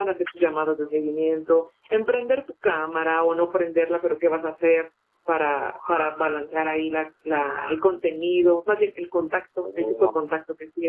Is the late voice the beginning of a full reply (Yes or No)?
No